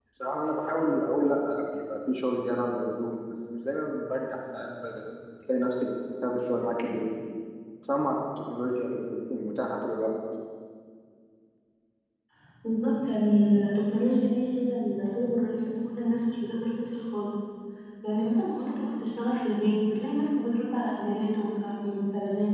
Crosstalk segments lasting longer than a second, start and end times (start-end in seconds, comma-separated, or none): none